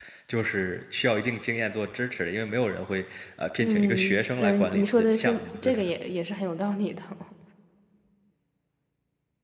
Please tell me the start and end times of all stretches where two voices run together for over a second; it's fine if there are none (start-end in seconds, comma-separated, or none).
3.6-5.9